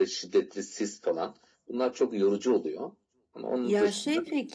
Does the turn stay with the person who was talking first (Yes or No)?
No